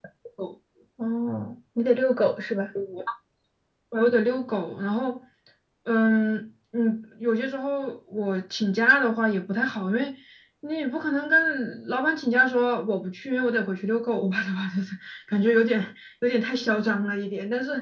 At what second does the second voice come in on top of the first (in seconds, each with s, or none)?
none